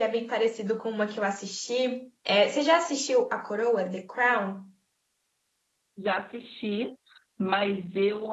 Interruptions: none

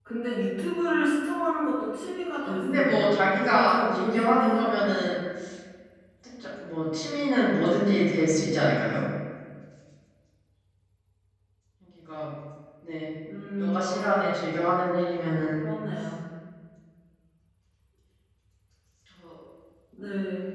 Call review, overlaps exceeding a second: present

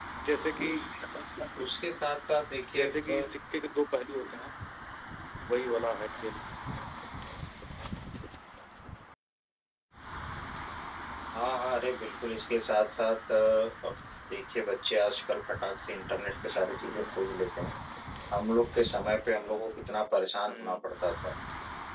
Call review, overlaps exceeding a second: none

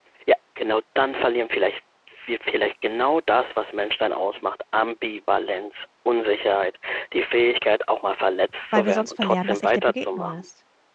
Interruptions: present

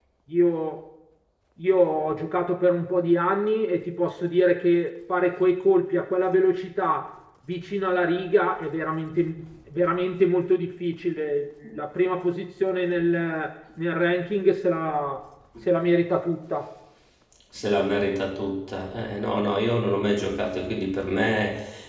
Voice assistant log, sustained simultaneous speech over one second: none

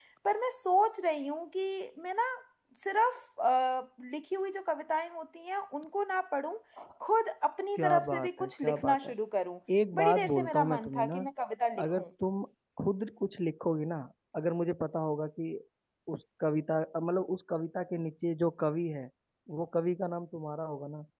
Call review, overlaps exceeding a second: present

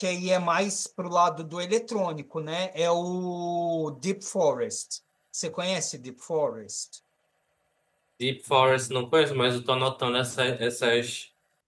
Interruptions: none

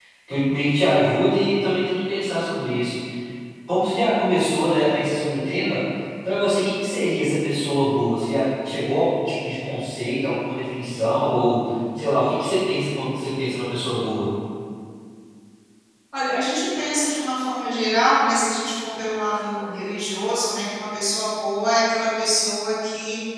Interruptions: none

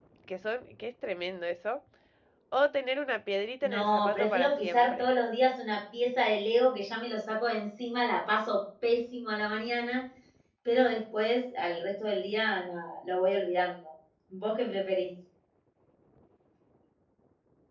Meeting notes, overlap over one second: present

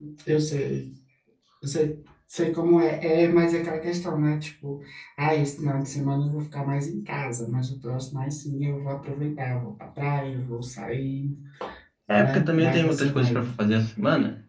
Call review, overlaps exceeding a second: present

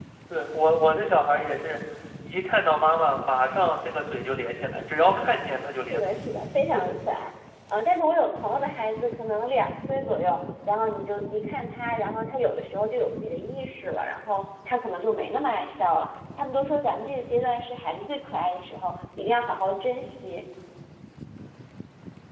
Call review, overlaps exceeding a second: none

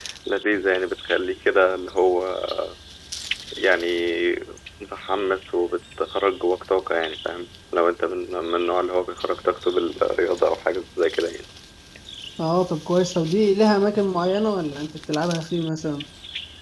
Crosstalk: none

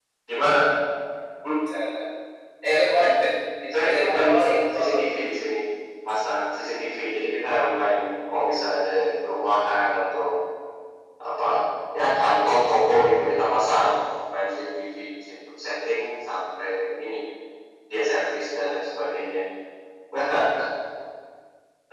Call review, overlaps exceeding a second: present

